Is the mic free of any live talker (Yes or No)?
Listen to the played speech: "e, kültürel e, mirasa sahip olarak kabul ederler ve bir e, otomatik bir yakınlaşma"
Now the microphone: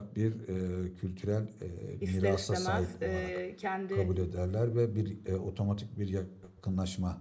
No